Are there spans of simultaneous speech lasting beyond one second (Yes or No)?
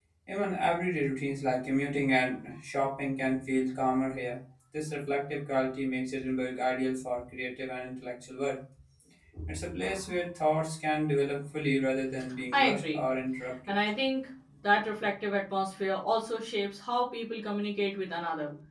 No